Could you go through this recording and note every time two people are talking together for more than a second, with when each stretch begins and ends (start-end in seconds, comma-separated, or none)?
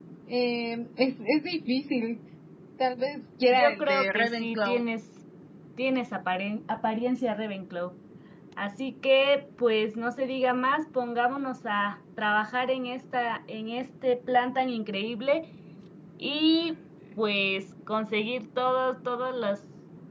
3.5-4.8